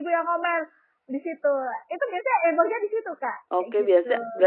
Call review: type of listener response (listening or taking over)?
taking over